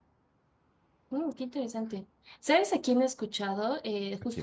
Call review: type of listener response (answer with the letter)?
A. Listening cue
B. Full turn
A